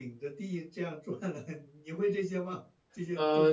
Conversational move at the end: taking over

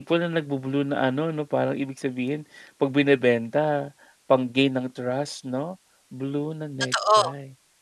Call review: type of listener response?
taking over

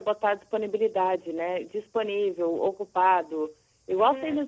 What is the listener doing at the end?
listening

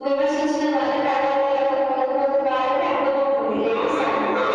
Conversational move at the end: taking over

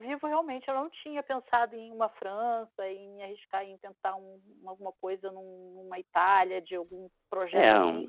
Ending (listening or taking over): taking over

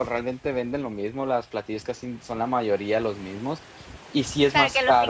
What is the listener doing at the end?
taking over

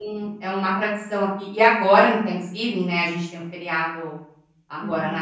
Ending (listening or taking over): listening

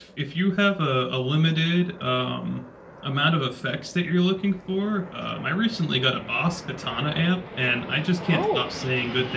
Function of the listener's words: listening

